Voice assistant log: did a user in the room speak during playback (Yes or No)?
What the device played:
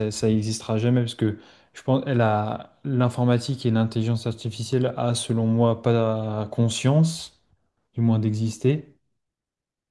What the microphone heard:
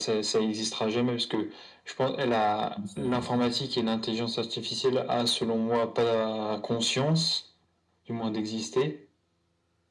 Yes